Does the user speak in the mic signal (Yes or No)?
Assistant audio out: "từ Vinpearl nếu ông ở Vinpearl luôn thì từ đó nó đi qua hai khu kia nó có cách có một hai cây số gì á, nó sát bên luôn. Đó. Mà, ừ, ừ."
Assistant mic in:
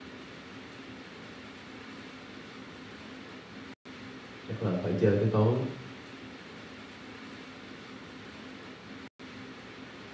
Yes